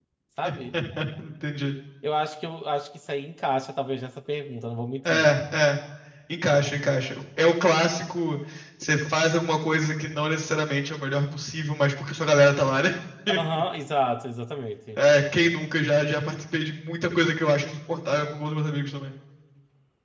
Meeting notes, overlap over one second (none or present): none